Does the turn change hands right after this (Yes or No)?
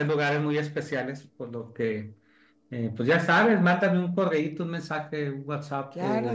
Yes